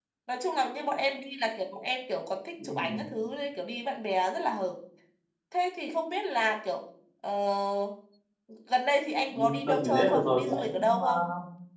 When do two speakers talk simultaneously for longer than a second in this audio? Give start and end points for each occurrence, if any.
9.3-11.1

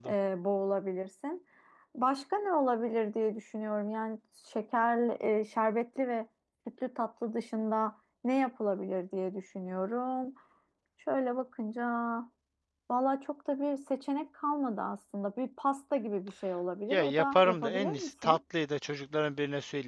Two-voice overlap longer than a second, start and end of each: 16.9-18.4

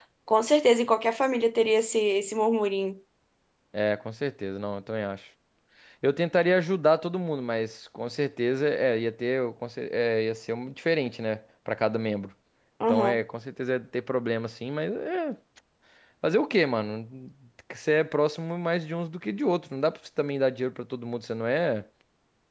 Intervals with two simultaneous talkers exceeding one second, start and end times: none

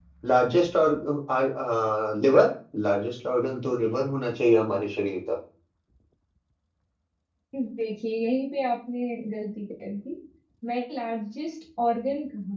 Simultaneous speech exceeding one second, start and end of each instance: none

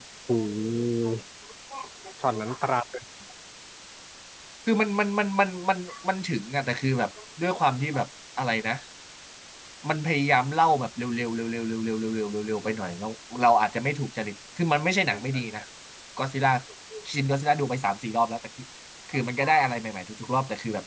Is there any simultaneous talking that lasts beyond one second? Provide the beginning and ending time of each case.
none

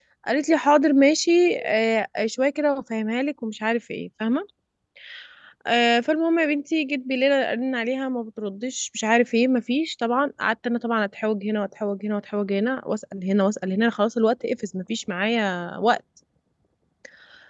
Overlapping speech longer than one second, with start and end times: none

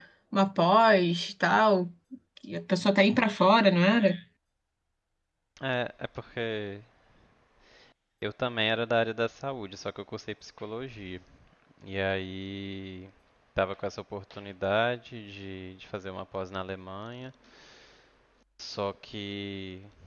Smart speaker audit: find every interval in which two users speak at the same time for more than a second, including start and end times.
none

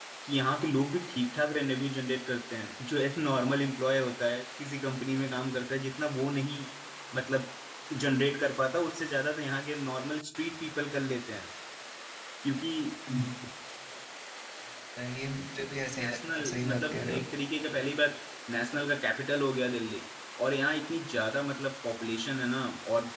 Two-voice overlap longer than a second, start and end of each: 16.0-17.2

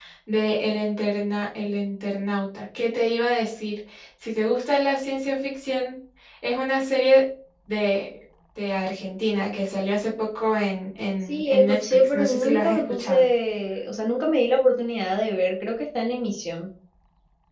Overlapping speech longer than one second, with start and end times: 11.2-13.2

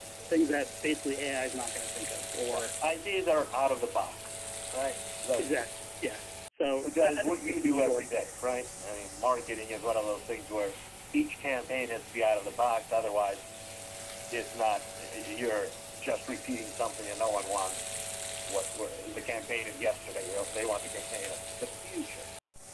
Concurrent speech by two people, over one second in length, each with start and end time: 6.8-8.0

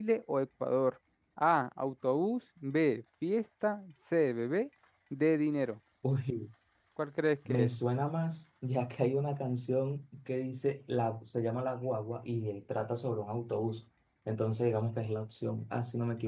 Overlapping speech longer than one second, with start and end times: none

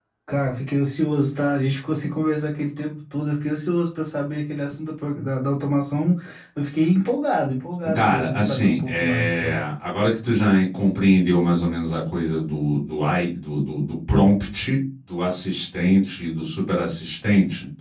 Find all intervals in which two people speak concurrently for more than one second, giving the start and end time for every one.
7.9-9.6

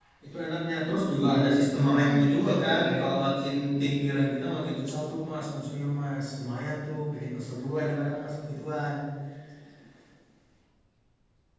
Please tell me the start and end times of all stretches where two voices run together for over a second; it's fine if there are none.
1.2-3.1

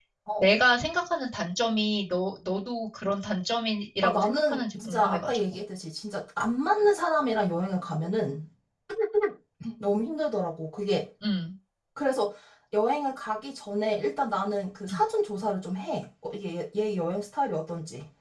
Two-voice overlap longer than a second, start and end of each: 4.0-5.4

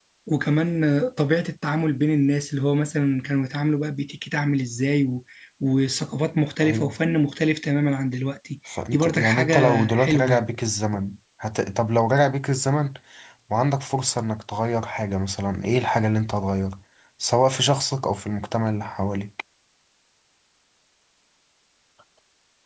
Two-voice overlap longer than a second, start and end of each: 8.9-10.4

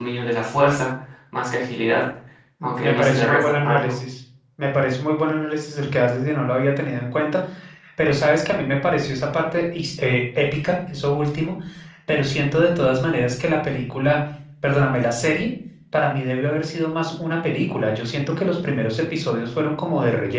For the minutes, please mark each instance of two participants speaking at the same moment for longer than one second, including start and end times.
2.6-3.9

